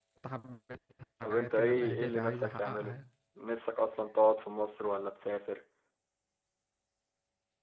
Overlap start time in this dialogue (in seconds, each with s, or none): 1.2 s